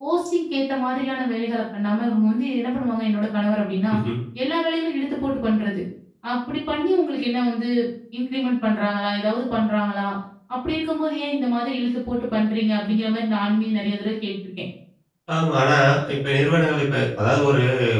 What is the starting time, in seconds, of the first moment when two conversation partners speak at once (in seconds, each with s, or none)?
none